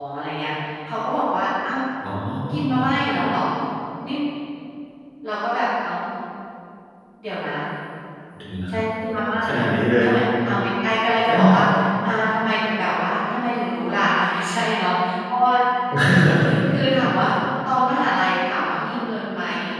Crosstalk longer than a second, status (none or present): none